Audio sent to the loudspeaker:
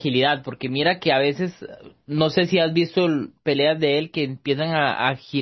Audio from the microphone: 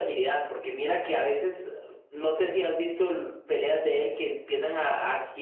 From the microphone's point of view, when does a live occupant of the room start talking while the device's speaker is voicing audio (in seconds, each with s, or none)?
none